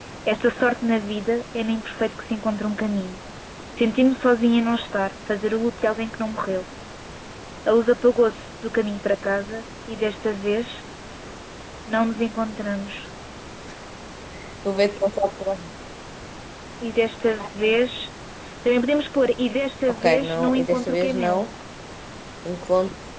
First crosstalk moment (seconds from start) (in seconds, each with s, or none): 19.9 s